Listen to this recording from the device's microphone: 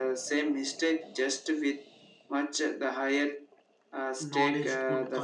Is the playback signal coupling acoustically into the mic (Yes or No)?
Yes